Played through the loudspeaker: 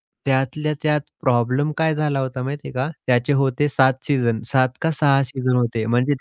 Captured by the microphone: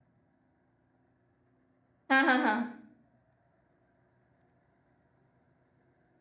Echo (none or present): none